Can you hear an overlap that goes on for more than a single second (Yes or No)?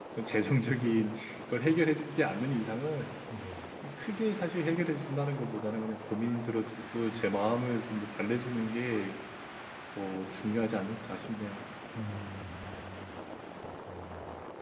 No